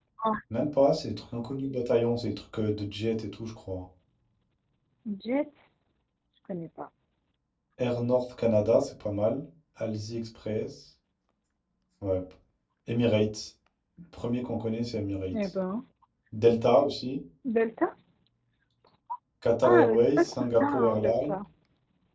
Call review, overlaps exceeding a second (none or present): present